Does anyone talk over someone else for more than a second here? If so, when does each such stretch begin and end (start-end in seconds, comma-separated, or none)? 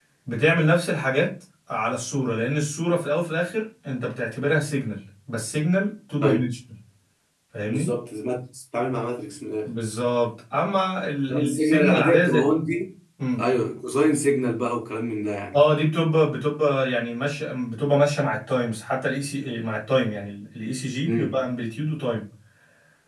11.3-12.5